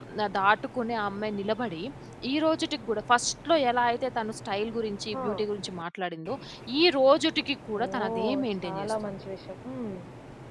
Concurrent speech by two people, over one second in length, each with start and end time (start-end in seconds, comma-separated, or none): 7.8-9.2